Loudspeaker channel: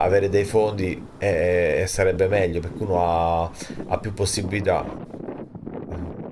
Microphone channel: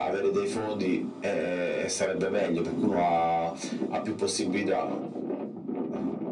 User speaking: No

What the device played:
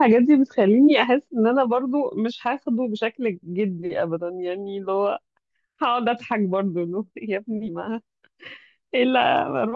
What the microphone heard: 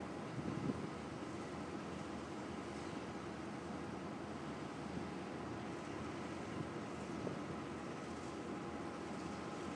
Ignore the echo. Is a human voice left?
No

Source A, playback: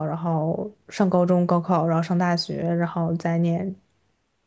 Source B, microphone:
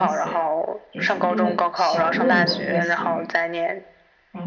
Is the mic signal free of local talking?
No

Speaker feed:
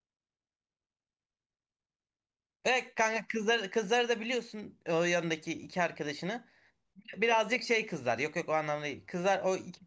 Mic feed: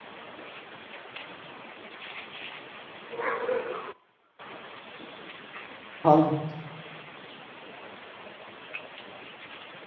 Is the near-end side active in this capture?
Yes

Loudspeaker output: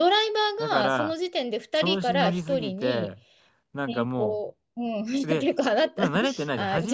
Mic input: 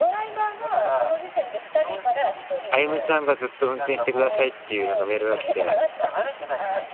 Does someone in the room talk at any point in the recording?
Yes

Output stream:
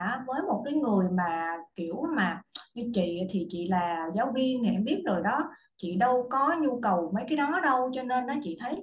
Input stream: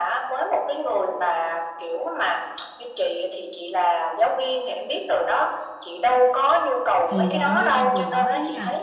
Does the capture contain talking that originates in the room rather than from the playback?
Yes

